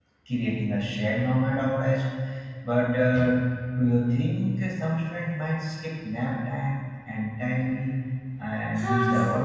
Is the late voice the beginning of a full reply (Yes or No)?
Yes